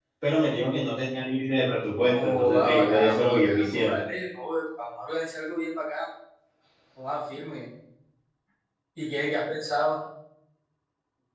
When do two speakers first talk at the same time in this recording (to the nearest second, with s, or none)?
2 s